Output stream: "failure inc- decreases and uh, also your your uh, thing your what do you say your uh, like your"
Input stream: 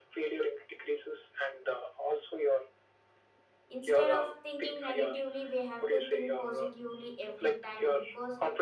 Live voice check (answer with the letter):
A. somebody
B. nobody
A